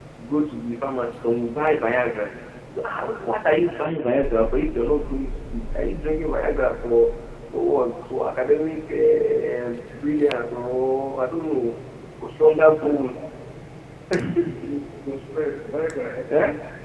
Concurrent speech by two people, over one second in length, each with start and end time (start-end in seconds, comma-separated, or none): none